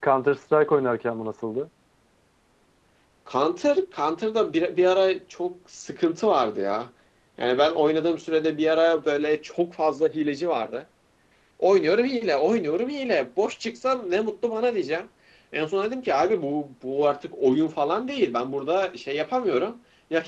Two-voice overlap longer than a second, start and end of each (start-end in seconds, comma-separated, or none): none